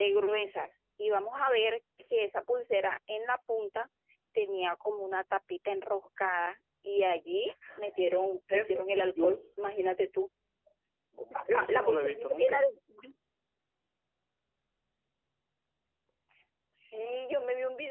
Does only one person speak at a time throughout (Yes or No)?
No